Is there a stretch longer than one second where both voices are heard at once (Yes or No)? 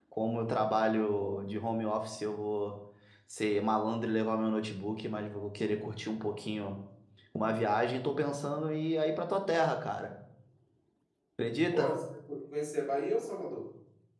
No